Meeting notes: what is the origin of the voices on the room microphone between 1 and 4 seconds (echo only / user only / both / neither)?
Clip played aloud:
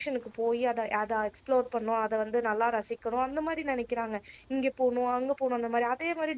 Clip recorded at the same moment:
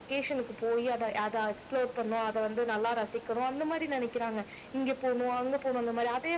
echo only